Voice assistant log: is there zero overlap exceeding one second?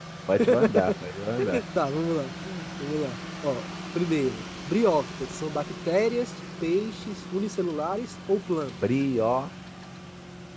Yes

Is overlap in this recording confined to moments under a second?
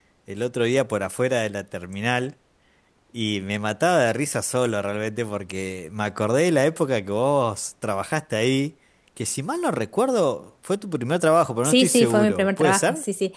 No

